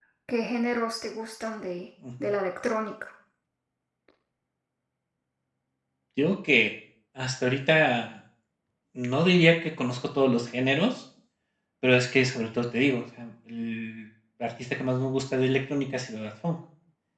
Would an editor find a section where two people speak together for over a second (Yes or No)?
No